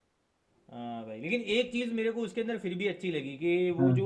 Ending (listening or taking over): listening